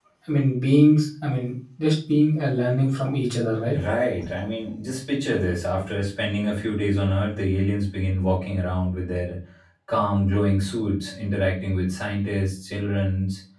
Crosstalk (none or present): none